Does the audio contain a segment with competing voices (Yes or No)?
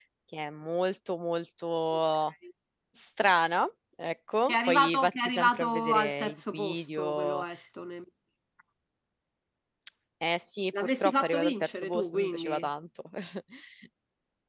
Yes